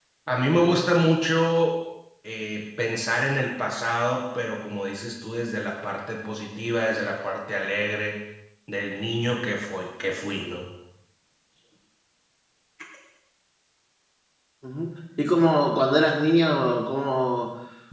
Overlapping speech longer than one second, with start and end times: none

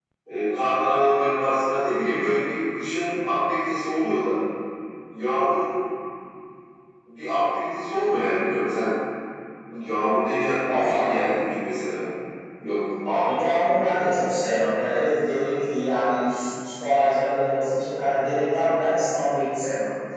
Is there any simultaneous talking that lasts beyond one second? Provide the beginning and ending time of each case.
none

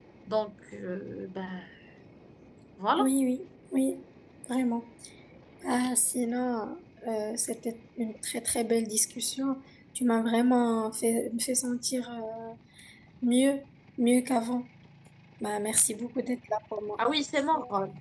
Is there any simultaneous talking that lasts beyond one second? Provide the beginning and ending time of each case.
none

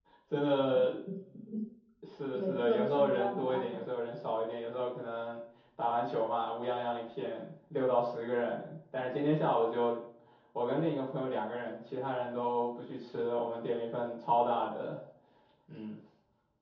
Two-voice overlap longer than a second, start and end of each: 2.3-3.8

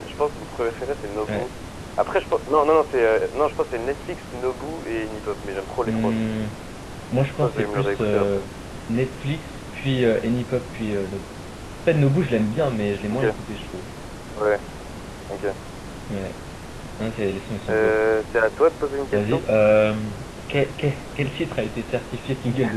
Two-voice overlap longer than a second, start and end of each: 7.2-8.4

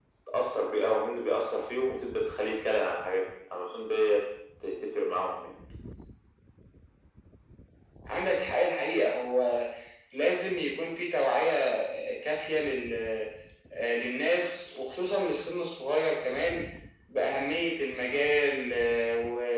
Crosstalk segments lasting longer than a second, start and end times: none

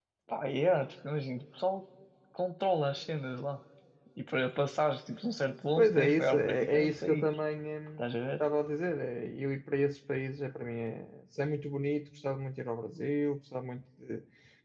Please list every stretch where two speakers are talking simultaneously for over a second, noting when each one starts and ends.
5.8-7.3

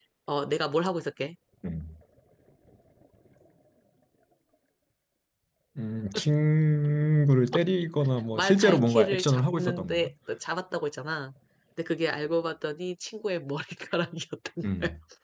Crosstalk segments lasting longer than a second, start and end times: 8.3-10.1

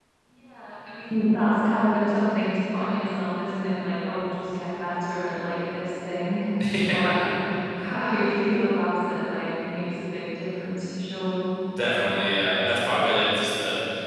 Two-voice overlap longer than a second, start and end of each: none

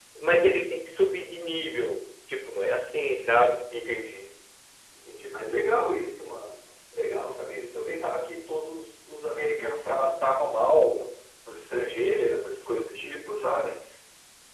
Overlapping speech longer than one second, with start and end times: none

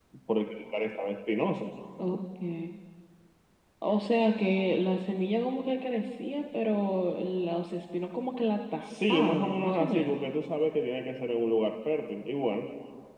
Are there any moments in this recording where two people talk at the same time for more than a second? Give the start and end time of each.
8.8-10.2

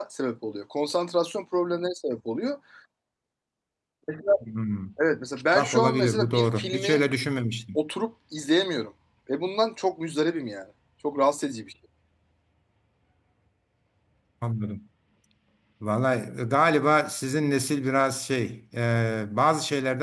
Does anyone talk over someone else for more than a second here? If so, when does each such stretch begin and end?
5.5-7.0

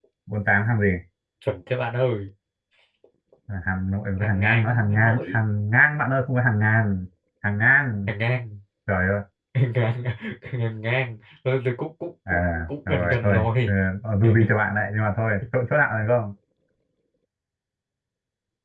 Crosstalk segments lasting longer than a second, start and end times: 4.2-5.4, 12.3-13.7

